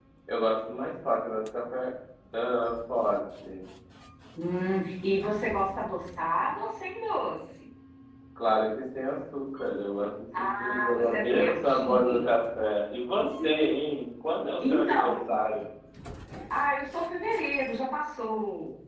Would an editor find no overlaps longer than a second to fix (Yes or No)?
No